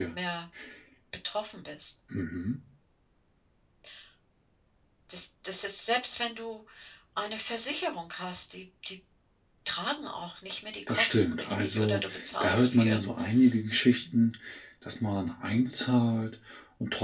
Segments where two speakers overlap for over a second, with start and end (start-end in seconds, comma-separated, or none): 10.9-13.0